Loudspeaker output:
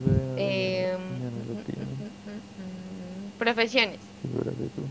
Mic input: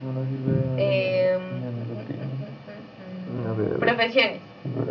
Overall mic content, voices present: both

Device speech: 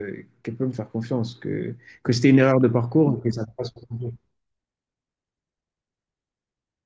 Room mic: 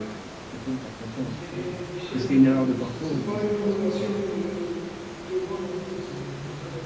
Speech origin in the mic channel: both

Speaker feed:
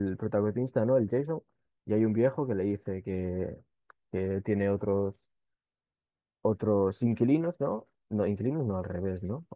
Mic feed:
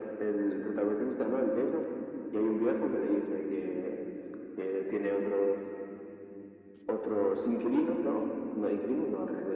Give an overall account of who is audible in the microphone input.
echo only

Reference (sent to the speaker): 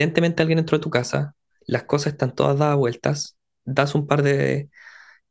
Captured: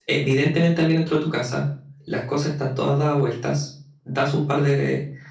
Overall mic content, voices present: echo only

